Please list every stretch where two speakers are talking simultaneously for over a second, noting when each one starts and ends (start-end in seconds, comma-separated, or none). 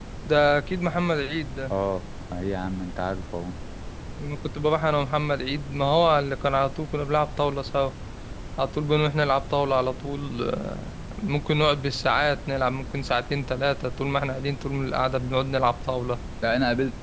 none